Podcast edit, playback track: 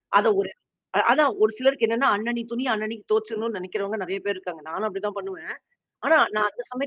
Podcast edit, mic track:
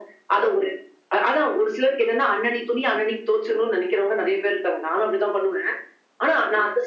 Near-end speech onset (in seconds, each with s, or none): none